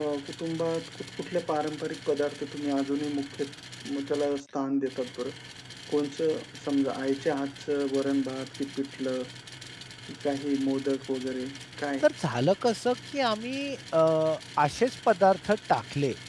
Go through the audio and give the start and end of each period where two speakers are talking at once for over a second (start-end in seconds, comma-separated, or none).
none